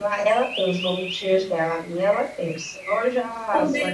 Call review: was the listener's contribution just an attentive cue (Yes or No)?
No